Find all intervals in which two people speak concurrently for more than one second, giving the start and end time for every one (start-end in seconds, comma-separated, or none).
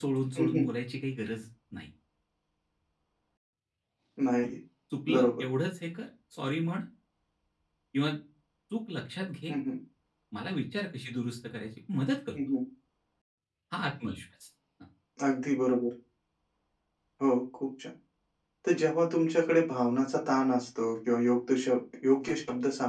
none